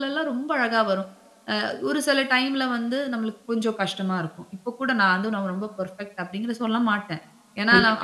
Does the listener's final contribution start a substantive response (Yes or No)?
Yes